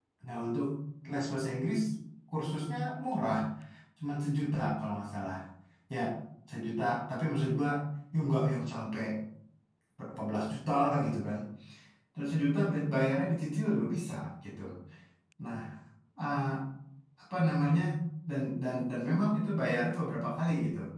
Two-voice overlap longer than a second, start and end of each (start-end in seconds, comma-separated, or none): none